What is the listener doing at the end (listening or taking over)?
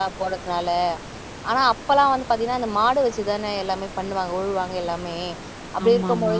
listening